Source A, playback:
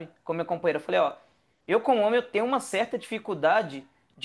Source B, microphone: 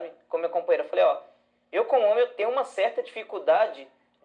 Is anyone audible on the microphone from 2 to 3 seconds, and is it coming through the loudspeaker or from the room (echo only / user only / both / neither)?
echo only